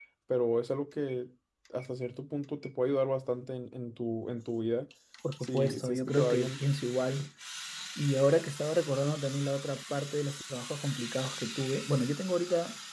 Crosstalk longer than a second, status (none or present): present